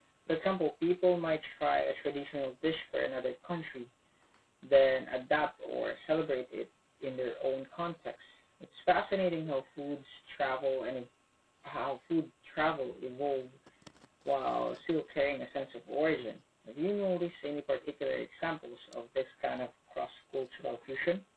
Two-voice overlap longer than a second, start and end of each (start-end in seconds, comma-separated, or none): none